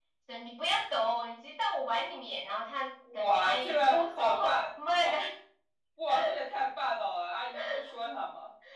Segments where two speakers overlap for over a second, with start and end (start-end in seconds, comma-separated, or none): 3.2-4.6